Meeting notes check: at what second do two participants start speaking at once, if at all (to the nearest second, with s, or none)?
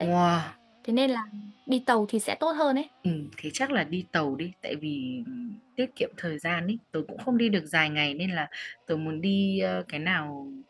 none